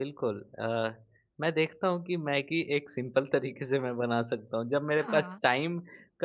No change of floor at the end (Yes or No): Yes